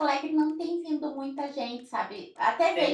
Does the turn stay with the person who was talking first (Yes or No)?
Yes